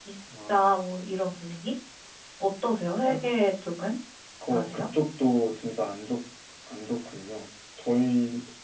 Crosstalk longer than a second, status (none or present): none